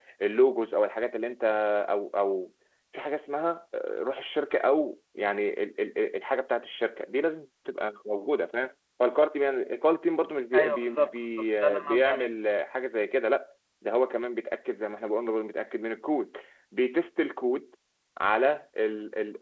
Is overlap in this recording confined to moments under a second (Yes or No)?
No